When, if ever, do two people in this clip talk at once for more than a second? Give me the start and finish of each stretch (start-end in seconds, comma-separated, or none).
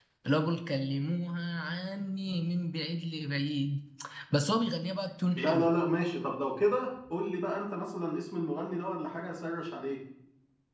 none